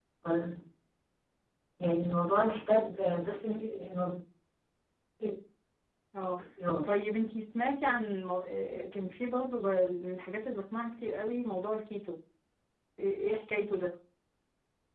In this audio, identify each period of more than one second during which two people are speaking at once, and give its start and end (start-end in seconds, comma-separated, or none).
none